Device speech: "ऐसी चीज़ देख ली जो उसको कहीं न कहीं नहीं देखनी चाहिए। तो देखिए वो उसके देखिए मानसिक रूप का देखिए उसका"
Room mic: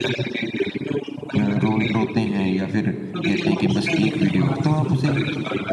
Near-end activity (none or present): present